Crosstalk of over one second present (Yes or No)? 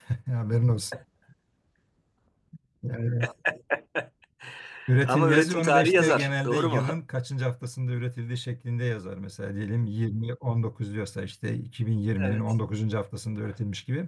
Yes